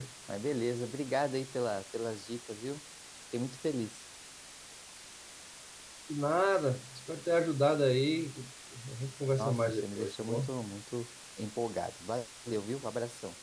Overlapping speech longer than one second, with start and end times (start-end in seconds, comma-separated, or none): 9.3-10.5